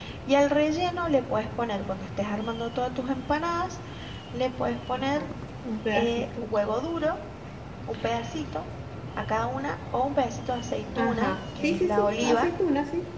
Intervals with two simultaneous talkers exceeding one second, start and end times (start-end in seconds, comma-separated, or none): 11.0-12.5